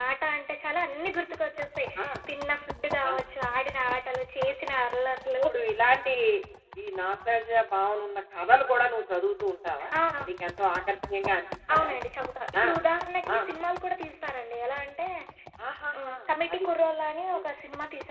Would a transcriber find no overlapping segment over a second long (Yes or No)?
Yes